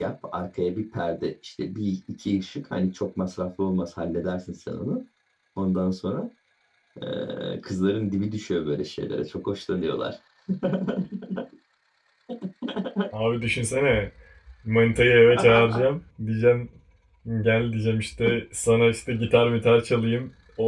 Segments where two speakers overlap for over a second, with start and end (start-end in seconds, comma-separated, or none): none